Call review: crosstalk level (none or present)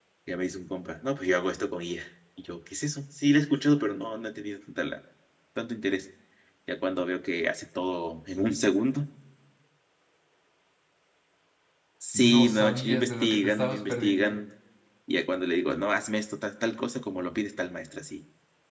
present